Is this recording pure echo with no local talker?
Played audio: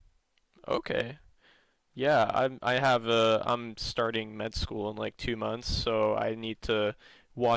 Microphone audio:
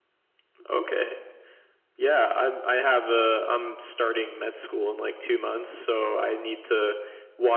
Yes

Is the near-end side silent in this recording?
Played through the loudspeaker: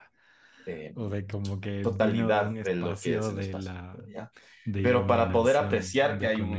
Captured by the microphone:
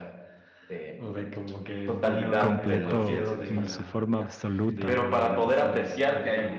No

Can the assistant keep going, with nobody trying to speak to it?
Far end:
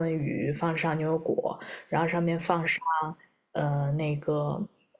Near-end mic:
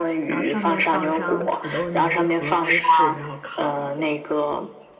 No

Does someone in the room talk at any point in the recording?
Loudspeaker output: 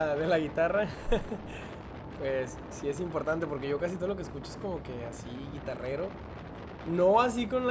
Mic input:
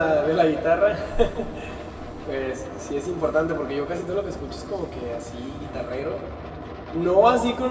No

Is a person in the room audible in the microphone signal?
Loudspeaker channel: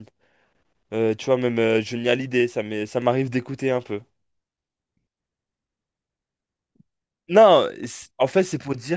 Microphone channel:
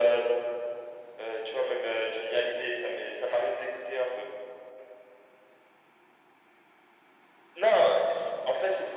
No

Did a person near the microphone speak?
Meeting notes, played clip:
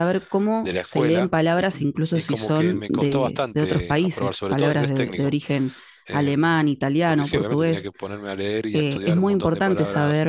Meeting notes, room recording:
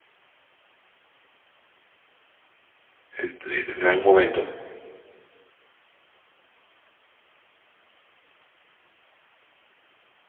Yes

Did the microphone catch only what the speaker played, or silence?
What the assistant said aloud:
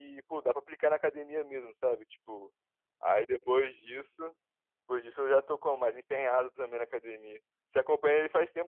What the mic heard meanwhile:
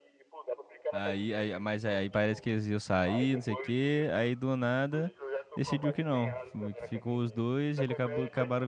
No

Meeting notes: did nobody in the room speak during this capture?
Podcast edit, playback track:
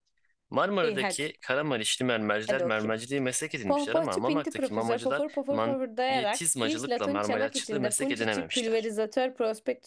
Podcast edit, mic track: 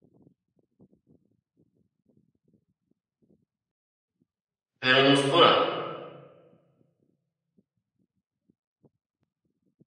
No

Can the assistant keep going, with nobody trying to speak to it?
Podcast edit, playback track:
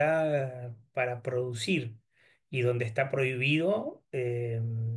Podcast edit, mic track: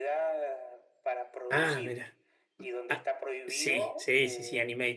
No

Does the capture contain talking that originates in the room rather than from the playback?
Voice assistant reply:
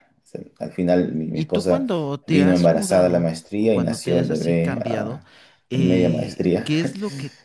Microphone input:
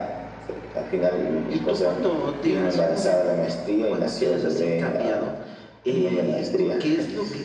No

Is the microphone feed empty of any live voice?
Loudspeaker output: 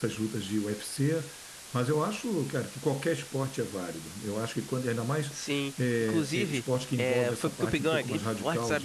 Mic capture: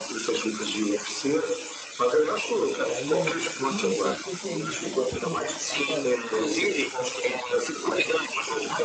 No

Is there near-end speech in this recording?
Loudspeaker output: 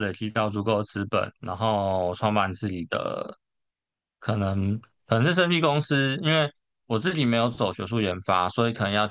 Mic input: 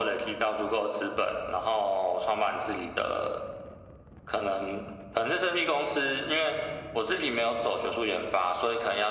No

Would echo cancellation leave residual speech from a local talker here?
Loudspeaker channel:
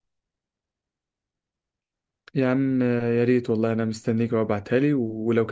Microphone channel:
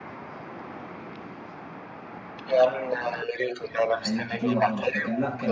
Yes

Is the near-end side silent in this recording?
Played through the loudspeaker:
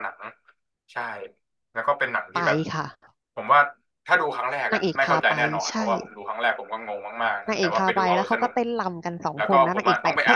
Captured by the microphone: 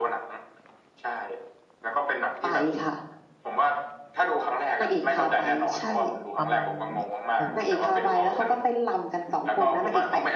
No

